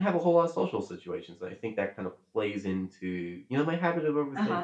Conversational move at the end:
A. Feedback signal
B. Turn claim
B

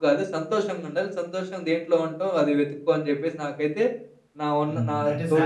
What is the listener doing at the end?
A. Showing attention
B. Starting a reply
B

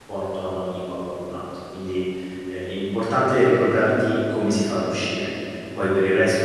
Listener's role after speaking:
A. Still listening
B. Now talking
A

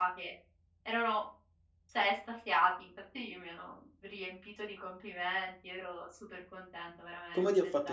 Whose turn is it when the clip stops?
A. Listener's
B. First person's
A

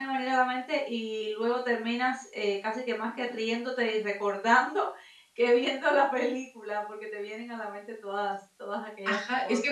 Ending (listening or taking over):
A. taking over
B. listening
A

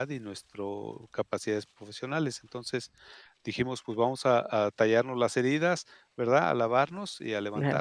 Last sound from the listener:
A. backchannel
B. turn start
A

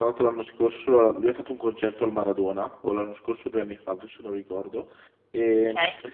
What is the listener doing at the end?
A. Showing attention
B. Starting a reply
A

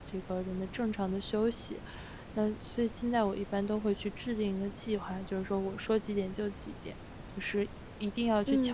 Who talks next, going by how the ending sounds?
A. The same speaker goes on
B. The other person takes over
B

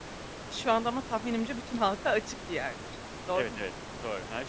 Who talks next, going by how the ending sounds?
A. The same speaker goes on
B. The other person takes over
B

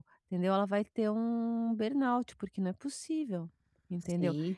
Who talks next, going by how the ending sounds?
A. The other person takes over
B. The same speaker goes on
B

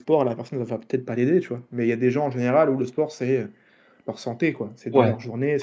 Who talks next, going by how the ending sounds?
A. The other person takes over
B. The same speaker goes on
A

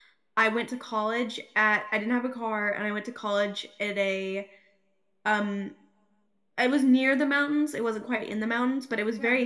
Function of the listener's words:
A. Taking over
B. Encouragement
B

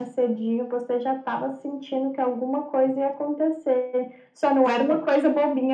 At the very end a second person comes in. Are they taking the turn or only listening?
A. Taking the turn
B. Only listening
B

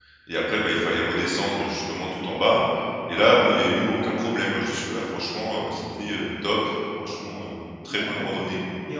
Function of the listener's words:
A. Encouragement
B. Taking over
B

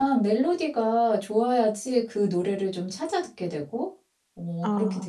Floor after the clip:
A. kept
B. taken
B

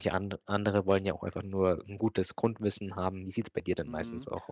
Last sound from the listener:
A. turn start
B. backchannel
A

